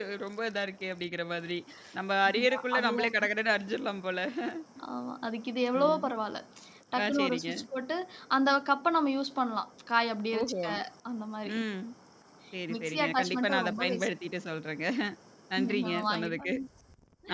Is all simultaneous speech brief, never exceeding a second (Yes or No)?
No